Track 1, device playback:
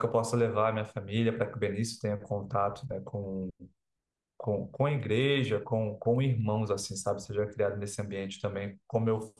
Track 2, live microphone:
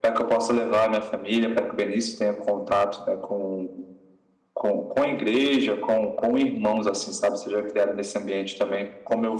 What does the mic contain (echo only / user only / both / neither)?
echo only